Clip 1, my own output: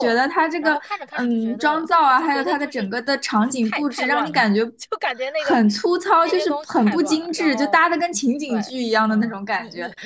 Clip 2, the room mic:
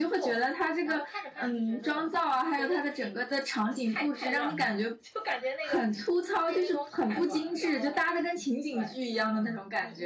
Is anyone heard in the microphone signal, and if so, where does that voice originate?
echo only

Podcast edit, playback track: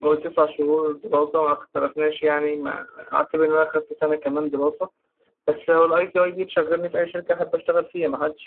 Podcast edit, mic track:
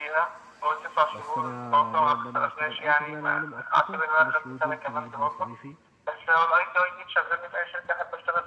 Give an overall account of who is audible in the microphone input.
both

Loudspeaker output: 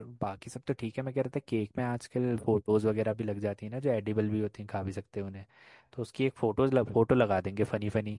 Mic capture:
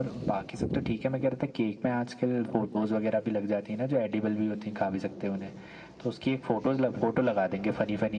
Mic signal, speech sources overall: echo only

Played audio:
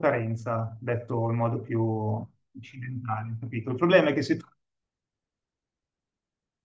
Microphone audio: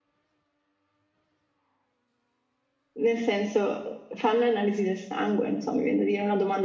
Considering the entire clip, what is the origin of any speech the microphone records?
user only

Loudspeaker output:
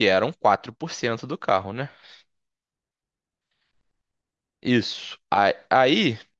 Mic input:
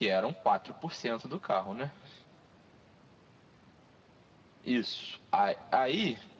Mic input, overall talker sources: echo only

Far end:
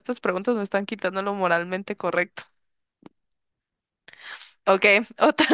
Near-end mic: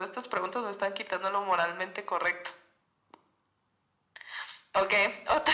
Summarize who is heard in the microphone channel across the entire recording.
echo only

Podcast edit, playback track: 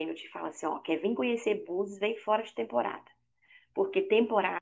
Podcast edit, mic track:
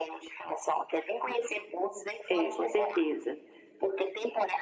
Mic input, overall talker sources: both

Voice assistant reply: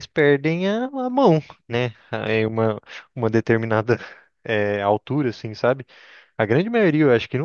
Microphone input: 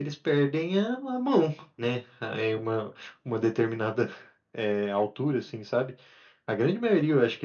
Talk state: echo only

